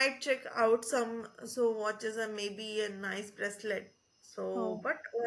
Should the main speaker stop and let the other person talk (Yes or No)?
No